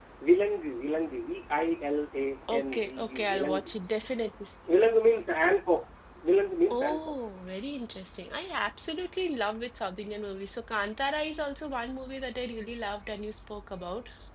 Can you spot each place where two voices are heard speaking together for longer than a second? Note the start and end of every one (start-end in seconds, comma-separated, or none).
2.5-3.7